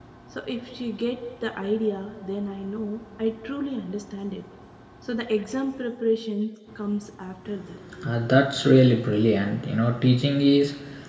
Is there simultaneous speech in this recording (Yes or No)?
No